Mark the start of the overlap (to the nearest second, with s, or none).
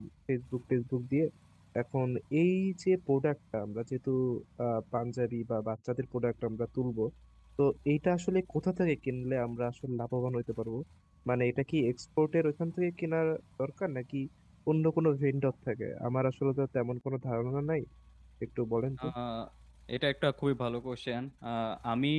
none